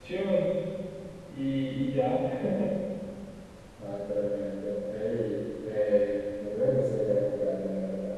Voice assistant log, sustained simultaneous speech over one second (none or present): none